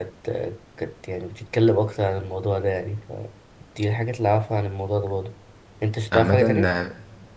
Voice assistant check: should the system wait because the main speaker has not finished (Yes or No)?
No